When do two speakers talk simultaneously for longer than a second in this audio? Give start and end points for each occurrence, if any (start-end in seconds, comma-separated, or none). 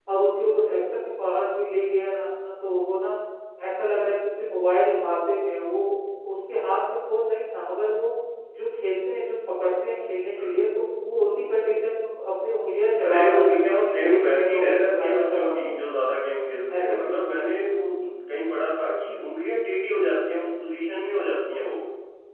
13.1-15.8